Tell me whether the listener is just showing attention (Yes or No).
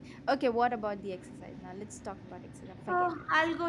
No